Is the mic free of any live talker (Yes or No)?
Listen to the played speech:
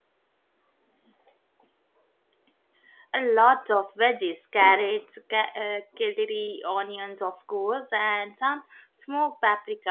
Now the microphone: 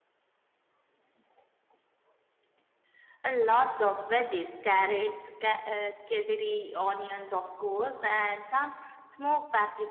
Yes